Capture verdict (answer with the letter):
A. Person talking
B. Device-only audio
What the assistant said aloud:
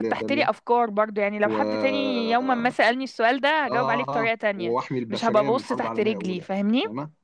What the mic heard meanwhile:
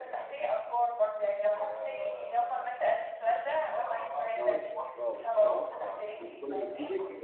A